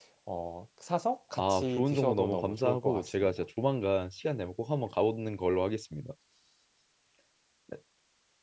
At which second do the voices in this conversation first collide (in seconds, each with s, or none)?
1.4 s